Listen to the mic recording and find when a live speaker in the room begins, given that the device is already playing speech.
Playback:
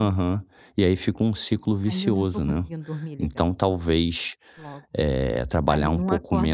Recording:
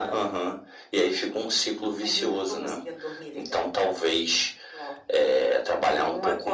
none

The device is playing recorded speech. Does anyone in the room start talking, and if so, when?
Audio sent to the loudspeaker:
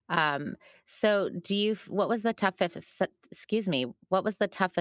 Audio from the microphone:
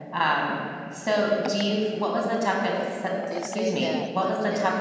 3.3 s

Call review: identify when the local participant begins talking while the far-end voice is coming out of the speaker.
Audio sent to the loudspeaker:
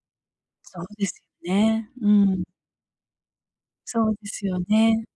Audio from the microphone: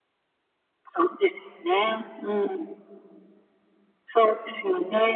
none

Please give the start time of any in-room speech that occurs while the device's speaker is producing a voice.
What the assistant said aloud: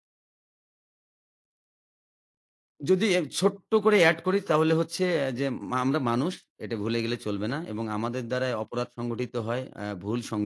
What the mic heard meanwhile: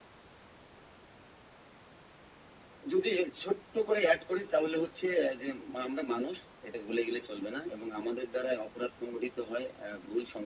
none

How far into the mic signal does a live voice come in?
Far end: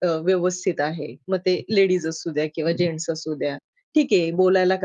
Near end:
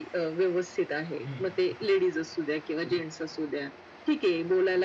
1.2 s

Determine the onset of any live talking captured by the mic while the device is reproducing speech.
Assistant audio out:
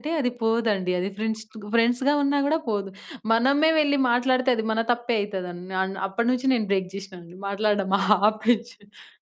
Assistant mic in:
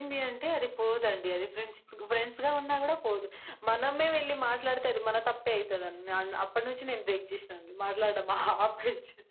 none

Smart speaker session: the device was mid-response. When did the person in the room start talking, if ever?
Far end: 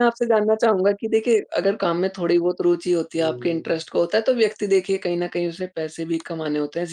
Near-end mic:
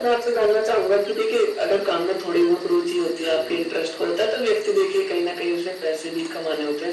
none

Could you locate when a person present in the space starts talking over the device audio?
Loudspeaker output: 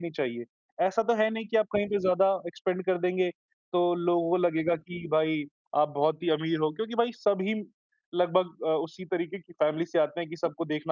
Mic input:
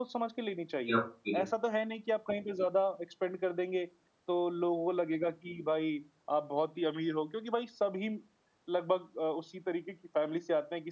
0.9 s

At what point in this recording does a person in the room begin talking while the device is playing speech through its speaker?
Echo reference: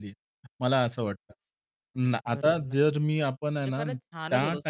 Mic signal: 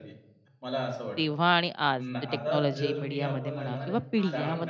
1.2 s

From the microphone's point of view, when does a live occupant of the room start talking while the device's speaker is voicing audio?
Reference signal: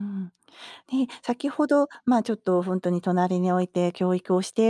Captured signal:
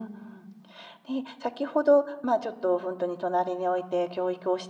none

